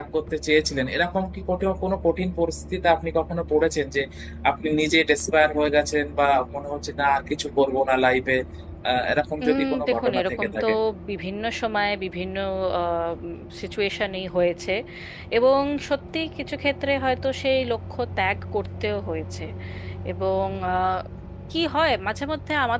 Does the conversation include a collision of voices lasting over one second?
Yes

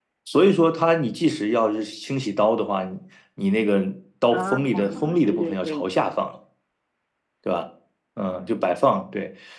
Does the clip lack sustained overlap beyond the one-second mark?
No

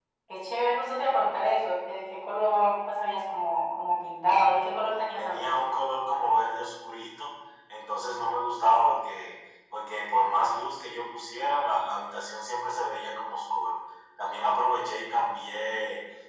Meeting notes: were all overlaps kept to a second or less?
Yes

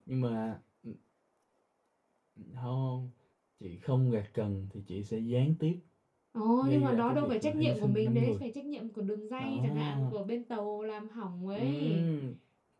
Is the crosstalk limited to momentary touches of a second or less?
No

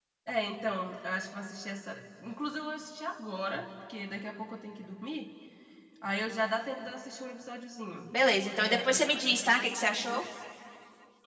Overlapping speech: Yes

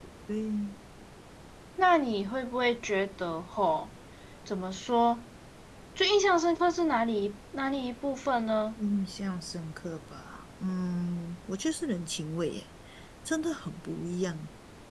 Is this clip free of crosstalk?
Yes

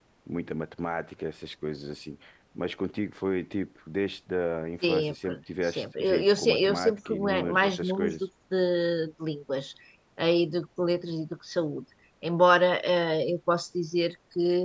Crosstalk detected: Yes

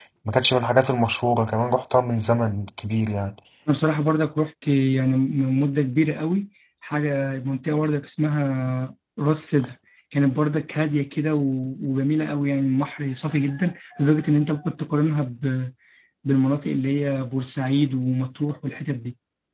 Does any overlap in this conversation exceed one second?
No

